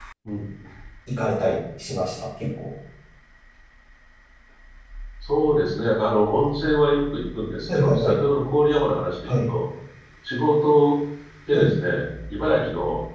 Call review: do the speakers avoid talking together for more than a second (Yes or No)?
Yes